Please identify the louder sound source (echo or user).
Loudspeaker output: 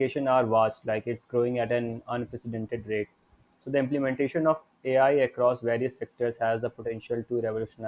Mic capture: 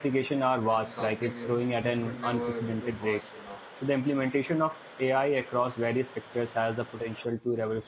echo